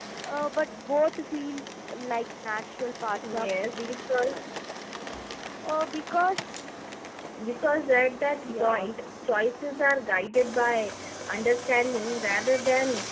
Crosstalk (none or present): present